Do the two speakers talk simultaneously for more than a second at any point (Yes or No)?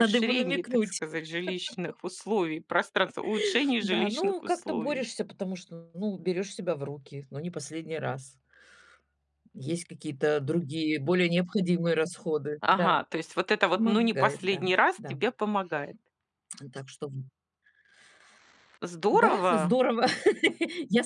Yes